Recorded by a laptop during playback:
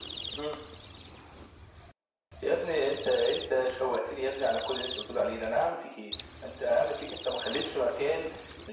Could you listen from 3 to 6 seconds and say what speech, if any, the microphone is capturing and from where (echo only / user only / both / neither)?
echo only